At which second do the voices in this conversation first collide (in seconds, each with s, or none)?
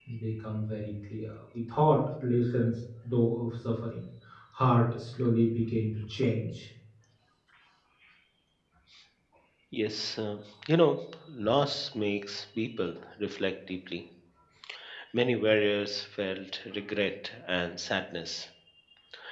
none